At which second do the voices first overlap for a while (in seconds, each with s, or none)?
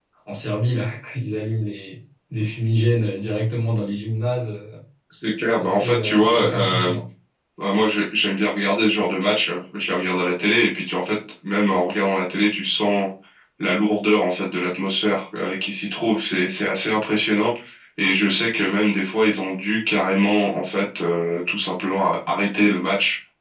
5.5 s